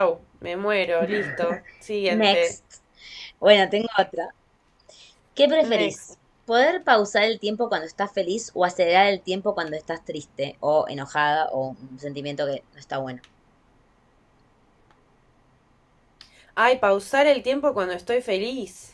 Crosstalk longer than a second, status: none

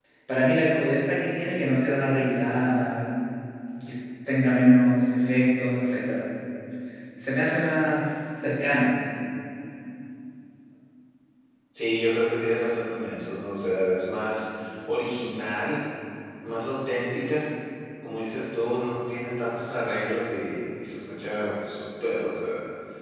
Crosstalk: none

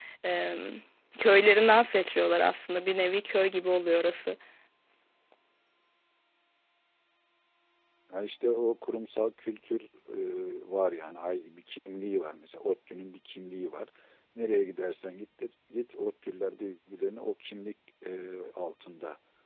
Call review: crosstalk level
none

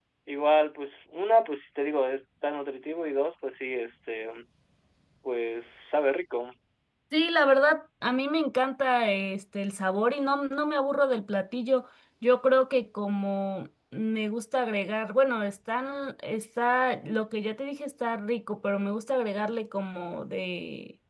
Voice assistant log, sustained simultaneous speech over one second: none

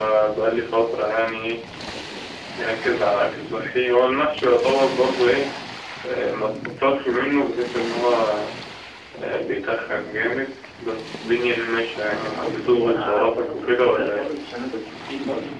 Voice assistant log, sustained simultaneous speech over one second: present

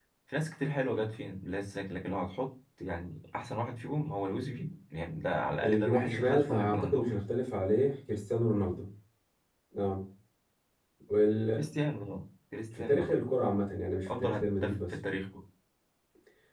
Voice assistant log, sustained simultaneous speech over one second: present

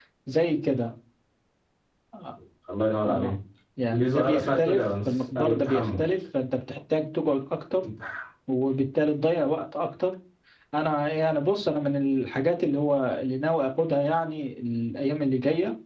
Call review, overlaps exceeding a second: present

